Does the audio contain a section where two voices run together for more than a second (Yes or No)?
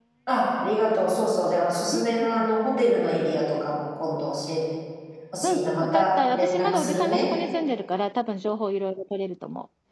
Yes